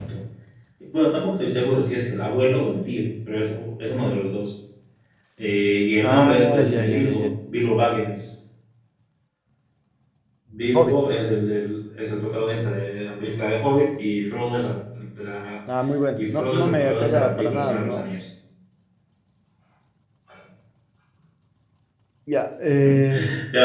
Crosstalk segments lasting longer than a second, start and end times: 6.0-7.3, 16.2-18.1

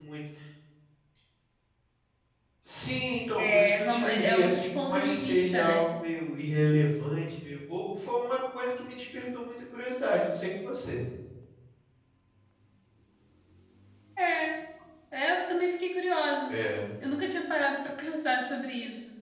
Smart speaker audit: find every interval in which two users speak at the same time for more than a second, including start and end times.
3.4-6.0

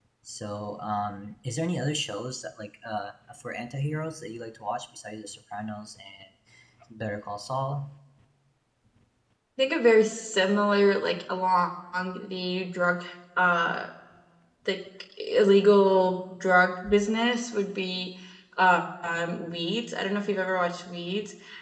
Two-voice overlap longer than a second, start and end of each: none

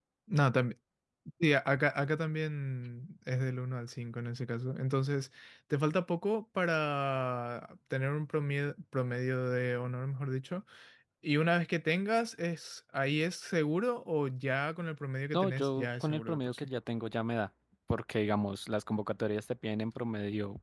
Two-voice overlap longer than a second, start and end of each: 15.3-16.7

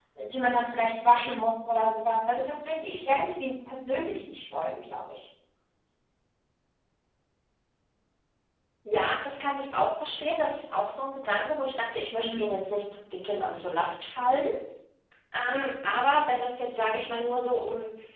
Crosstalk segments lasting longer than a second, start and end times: none

